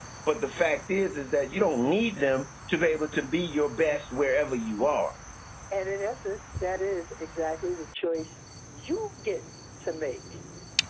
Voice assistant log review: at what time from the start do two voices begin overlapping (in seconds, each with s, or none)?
none